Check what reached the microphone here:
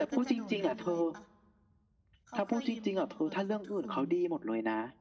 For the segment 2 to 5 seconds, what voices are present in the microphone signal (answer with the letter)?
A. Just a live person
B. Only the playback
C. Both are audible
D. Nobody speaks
C